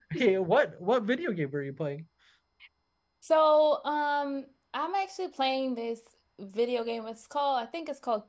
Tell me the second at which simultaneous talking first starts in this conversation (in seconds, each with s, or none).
none